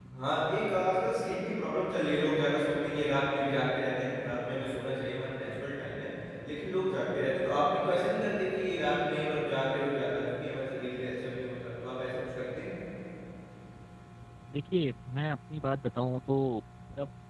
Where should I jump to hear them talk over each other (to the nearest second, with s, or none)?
none